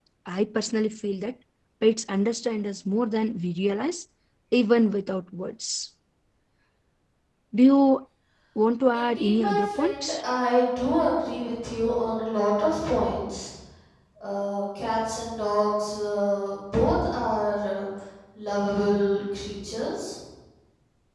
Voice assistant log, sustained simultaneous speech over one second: present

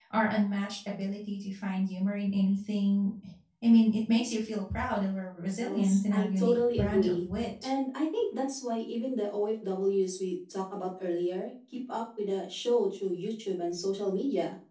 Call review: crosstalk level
present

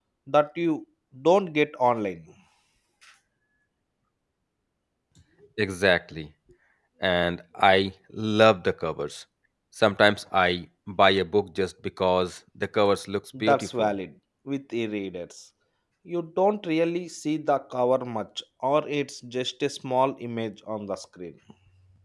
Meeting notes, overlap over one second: none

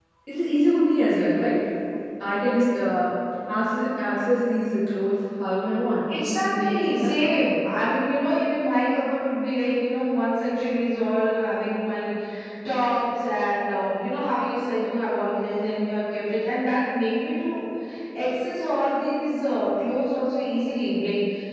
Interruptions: present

